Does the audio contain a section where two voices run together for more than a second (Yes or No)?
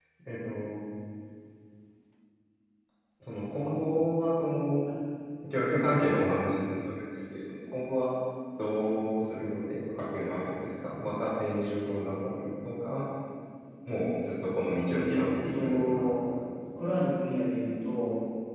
Yes